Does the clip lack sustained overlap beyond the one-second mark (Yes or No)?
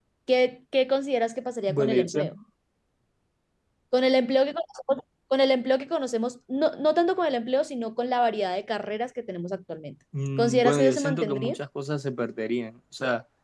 No